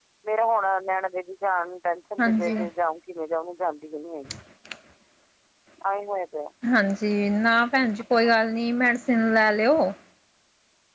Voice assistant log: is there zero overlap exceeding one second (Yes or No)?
Yes